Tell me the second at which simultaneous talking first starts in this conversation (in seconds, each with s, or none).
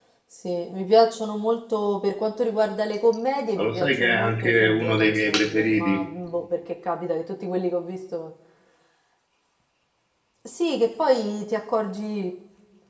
3.6 s